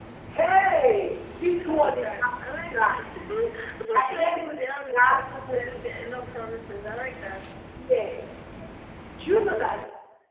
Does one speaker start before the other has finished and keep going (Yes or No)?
Yes